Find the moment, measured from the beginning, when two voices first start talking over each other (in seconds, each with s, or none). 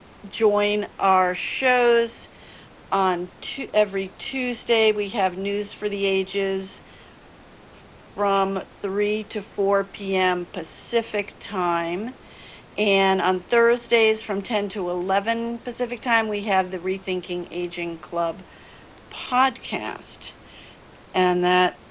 none